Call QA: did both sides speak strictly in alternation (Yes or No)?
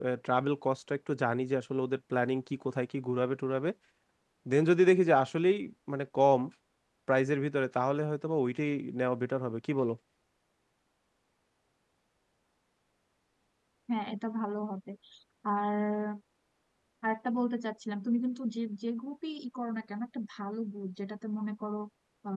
Yes